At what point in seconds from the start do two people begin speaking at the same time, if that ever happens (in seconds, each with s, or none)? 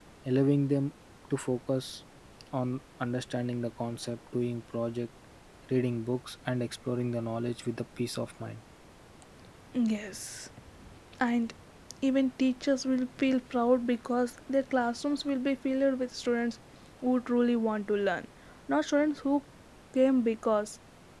none